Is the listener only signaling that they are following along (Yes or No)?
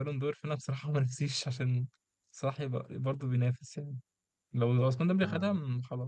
Yes